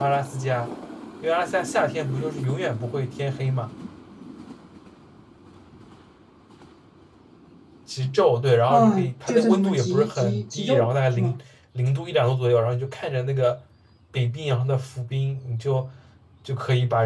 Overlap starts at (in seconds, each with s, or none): 8.7 s